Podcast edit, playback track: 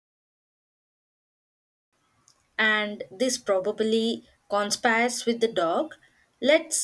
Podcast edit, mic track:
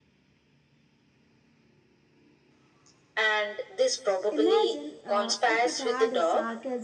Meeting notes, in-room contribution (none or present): present